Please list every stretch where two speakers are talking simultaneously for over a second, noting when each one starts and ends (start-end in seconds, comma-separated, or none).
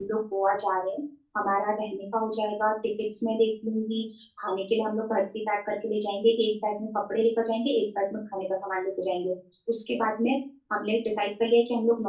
none